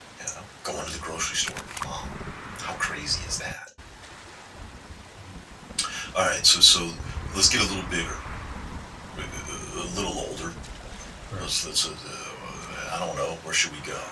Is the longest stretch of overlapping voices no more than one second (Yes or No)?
Yes